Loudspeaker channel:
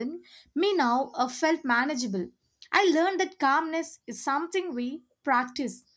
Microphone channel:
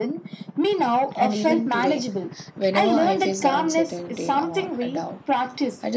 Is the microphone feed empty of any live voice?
No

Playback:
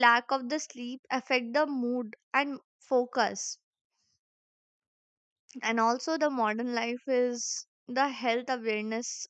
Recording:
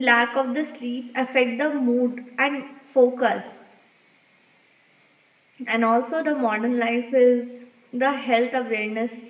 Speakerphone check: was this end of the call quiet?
Yes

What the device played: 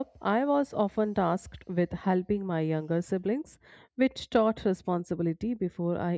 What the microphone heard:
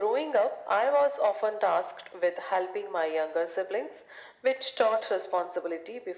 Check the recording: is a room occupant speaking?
No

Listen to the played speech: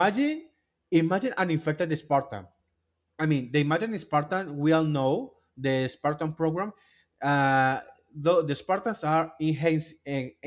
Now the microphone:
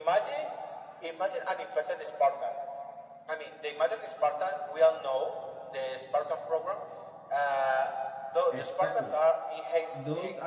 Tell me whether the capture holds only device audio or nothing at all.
No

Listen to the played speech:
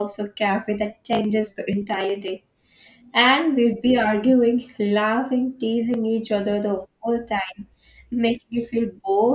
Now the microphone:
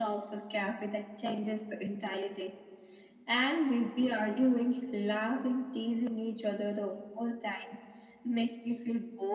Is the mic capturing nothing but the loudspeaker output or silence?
Yes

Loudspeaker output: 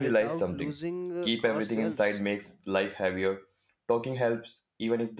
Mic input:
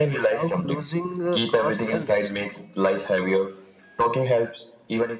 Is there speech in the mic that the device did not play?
No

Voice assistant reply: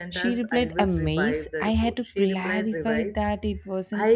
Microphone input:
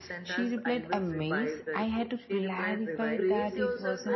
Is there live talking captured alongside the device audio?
Yes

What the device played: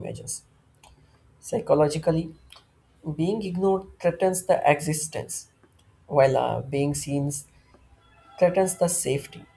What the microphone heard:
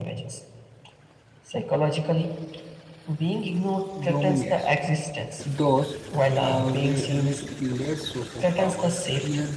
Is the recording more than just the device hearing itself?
Yes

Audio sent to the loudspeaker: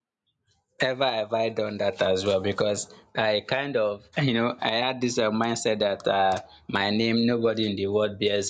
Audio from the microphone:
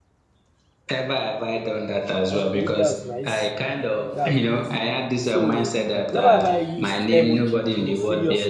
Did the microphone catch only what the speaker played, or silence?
No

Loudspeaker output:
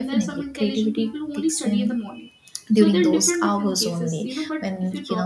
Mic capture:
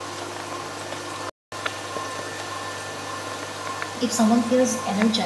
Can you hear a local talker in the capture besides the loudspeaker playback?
Yes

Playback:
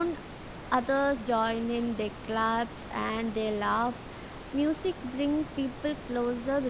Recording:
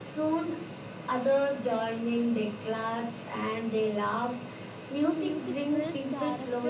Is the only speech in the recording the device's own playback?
No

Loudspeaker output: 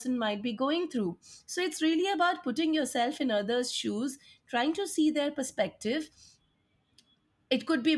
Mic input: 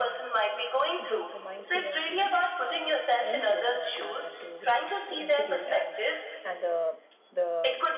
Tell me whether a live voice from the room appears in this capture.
Yes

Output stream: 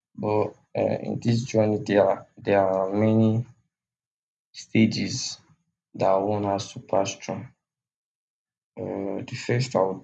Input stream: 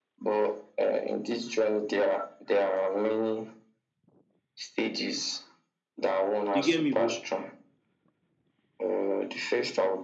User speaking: Yes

